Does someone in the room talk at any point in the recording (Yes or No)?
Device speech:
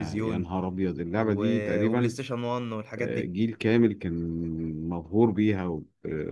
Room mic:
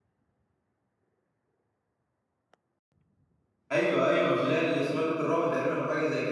Yes